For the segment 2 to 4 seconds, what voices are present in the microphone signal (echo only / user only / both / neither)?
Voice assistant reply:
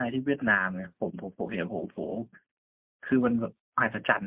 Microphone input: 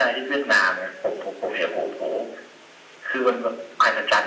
echo only